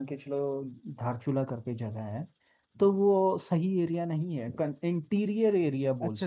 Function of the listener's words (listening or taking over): taking over